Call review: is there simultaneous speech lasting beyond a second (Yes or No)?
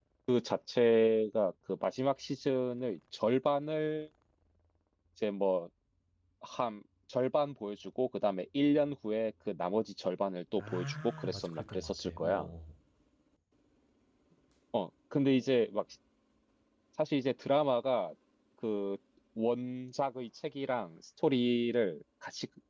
Yes